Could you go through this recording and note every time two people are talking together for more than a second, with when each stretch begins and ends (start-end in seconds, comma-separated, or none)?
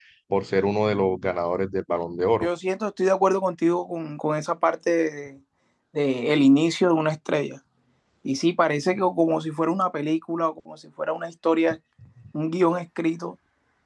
none